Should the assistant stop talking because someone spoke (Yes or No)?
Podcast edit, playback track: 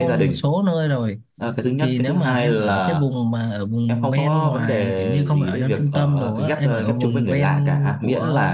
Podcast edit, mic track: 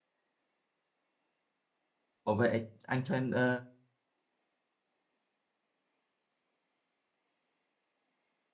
Yes